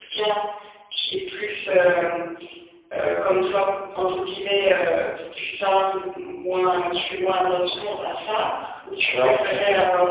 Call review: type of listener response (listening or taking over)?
taking over